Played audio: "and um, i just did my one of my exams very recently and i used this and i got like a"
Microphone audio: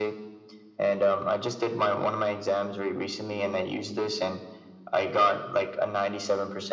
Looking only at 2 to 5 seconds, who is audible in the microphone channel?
echo only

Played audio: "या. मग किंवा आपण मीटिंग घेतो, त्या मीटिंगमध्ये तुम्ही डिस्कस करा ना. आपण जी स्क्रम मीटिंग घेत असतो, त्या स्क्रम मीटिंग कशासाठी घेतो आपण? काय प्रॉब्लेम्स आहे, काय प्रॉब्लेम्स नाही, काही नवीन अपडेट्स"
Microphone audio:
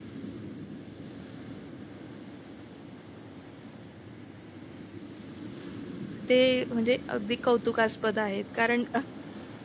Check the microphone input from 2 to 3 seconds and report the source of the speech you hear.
neither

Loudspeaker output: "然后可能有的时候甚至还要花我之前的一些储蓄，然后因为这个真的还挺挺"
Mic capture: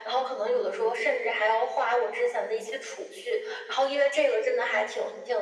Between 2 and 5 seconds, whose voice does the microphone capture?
echo only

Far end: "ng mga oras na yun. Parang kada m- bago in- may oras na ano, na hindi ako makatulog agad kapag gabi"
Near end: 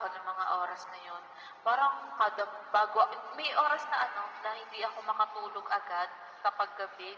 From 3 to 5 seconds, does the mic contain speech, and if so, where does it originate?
echo only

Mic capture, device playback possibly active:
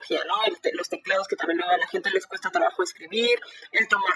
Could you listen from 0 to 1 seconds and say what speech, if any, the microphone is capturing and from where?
echo only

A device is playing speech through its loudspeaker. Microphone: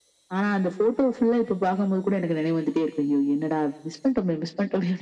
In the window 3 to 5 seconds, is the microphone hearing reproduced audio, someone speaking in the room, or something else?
echo only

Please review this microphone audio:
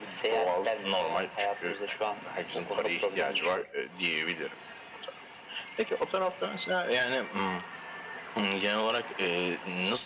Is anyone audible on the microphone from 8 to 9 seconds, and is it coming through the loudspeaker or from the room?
echo only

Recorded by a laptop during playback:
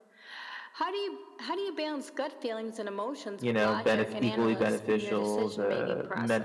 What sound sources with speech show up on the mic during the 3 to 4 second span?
both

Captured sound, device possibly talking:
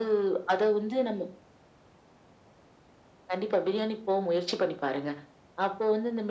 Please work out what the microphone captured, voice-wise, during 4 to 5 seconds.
echo only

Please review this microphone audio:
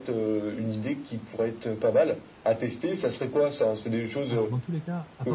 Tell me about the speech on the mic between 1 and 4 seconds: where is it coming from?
echo only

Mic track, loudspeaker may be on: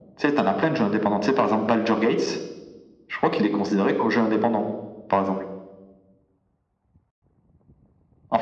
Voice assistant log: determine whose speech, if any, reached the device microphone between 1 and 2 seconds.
echo only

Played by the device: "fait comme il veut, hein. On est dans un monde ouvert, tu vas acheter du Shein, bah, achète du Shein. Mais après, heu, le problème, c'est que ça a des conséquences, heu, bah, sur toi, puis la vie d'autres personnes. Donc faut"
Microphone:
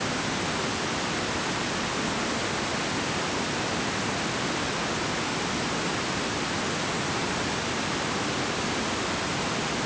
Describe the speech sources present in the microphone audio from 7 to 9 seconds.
neither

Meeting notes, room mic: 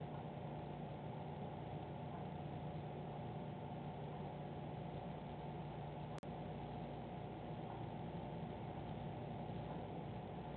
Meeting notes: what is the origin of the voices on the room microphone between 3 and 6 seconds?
neither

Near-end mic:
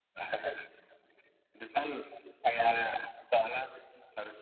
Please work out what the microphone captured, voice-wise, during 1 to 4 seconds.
echo only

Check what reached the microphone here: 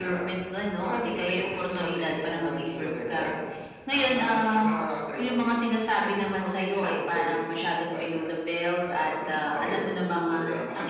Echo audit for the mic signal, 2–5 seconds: both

